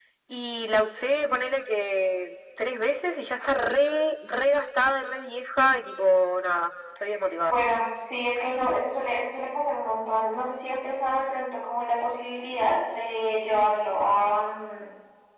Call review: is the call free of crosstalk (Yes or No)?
Yes